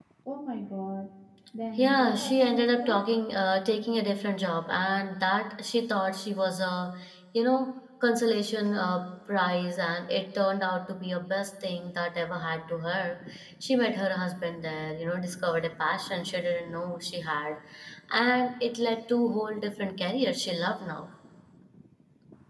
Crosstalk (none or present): present